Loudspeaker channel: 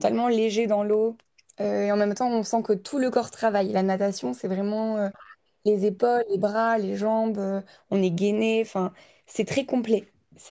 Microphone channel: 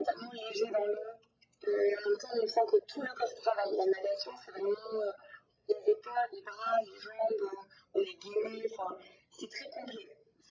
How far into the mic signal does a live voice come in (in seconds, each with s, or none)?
none